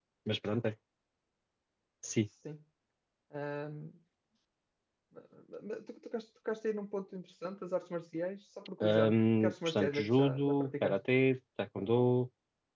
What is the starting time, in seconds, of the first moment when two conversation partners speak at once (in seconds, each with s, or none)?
8.8 s